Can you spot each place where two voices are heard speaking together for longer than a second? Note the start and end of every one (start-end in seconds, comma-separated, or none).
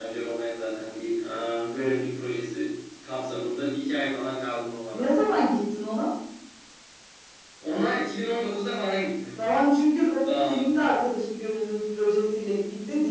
none